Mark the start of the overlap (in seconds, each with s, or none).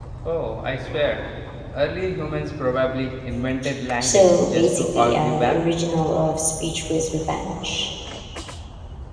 4.0 s